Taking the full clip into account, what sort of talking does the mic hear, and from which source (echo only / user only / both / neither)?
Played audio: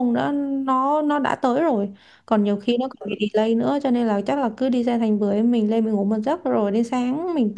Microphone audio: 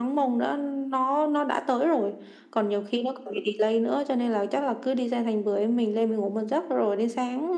echo only